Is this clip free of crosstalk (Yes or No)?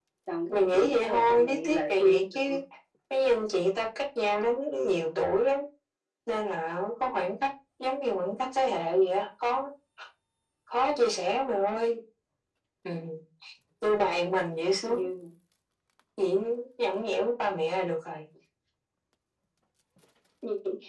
No